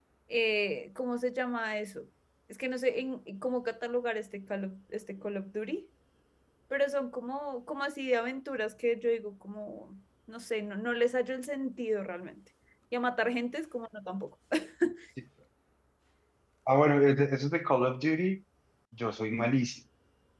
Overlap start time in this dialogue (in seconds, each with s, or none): none